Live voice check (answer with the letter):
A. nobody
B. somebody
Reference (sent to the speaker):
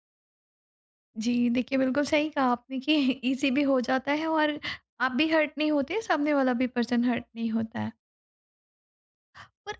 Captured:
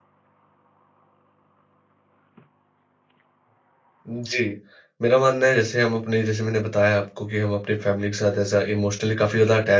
B